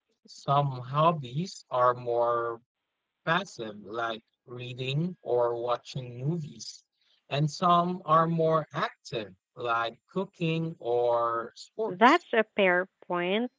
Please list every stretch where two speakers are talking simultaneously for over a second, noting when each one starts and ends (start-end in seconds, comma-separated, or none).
none